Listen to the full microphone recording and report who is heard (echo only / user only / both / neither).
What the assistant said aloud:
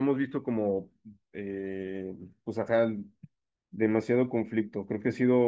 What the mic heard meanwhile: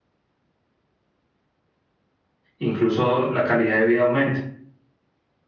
user only